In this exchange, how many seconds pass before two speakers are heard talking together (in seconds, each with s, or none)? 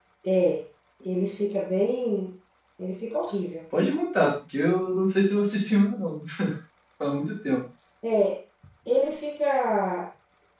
none